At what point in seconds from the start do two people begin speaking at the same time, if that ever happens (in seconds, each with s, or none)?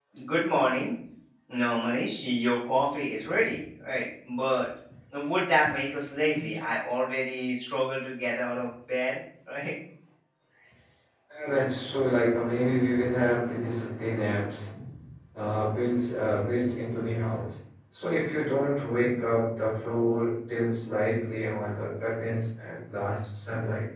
none